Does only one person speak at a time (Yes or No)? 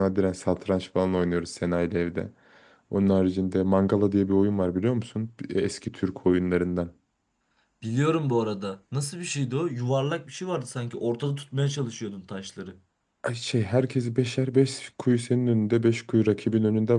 Yes